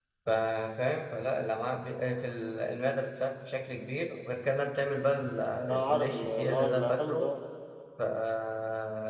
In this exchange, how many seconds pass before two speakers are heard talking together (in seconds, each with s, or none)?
5.7 s